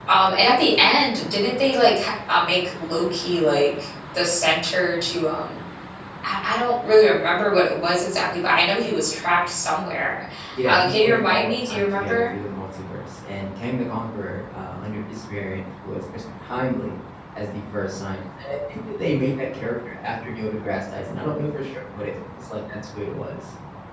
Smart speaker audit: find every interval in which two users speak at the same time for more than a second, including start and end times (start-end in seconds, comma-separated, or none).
10.6-12.3